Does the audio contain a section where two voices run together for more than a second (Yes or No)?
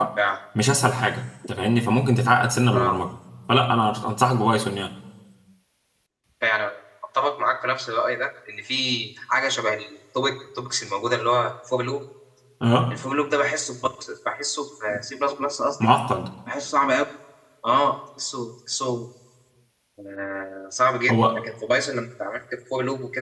No